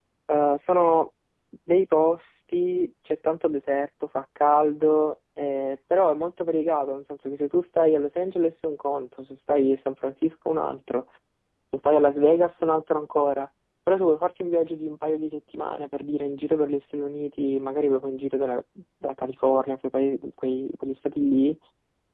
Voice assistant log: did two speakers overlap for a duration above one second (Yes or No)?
No